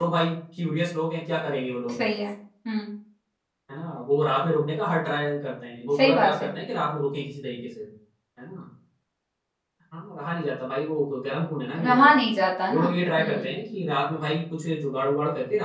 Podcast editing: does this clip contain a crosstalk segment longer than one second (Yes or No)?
No